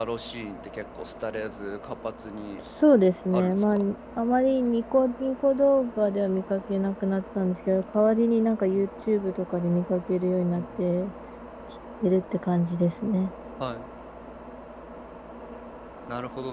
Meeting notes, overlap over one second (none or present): none